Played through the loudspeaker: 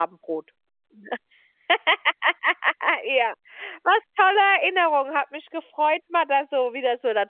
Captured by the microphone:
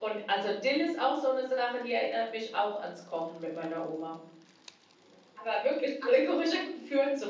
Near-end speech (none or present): present